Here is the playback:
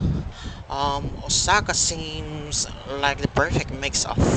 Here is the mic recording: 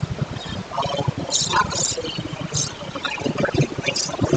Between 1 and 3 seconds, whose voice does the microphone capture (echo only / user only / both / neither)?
echo only